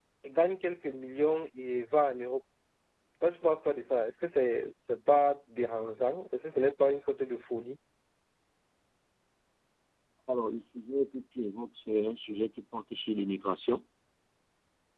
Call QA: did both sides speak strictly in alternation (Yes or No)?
Yes